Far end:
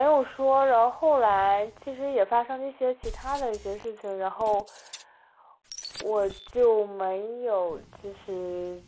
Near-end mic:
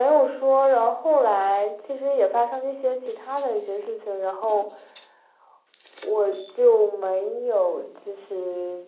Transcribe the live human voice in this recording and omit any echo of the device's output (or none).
none